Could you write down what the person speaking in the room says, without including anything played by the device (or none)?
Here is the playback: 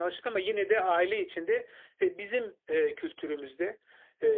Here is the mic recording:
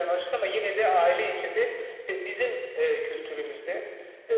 none